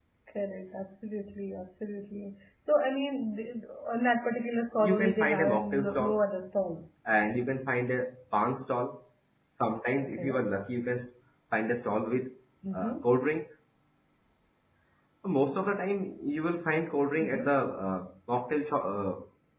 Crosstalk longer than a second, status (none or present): present